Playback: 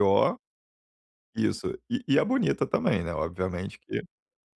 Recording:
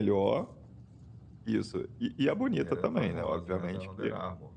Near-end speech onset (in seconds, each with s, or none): 2.6 s